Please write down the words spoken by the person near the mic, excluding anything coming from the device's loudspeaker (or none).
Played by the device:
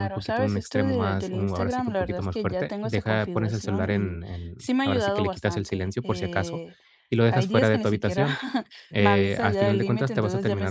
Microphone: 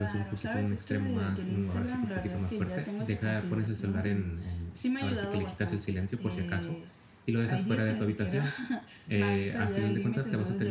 none